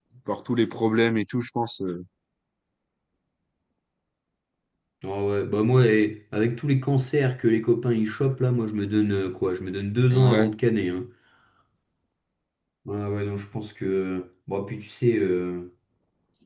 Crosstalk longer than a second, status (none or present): none